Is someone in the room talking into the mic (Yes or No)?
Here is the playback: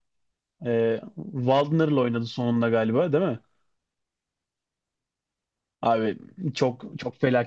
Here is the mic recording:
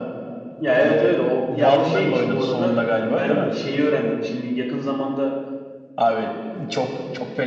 Yes